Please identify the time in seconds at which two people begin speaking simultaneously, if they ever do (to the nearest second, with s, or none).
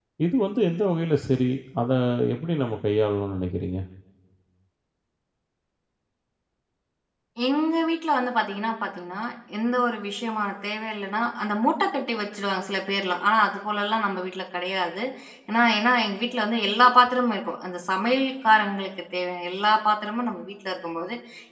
none